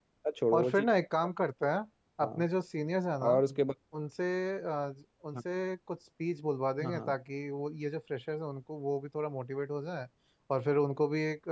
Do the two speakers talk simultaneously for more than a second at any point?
No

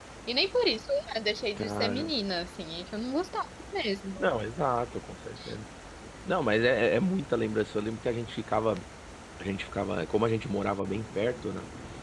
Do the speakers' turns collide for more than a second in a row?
No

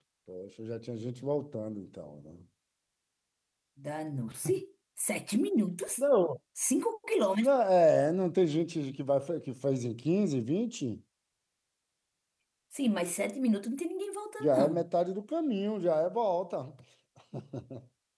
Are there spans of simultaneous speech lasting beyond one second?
No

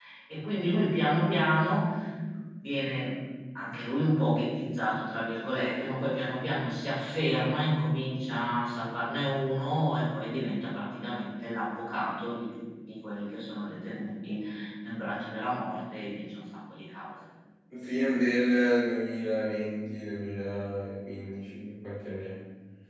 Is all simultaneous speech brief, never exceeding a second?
Yes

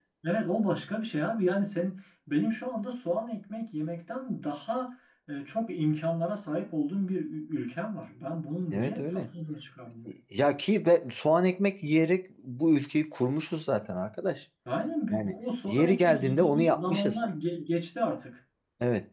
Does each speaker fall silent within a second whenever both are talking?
No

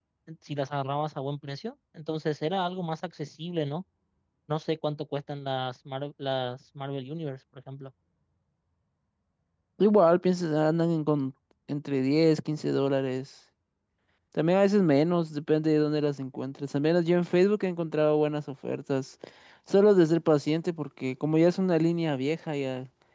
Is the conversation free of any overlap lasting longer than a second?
Yes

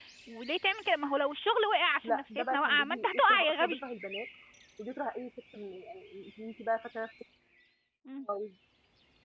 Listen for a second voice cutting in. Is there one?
Yes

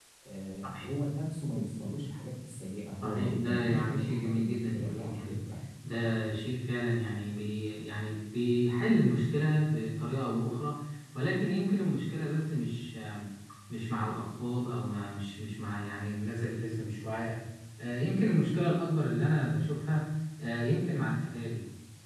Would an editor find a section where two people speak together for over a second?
Yes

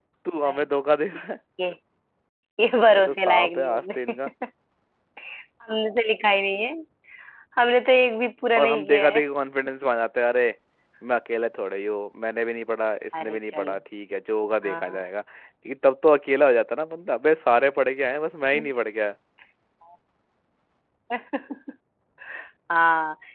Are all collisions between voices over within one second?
No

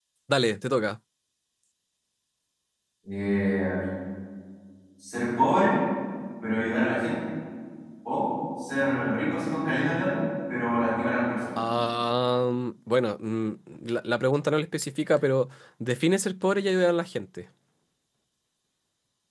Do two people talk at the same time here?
No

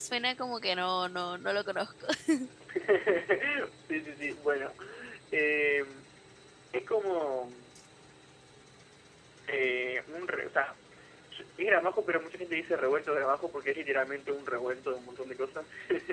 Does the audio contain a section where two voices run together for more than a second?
No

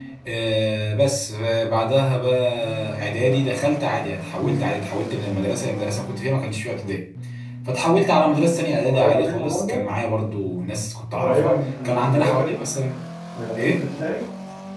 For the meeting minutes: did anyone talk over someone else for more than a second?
Yes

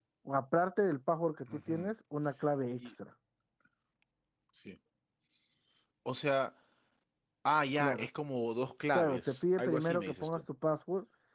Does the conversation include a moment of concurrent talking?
Yes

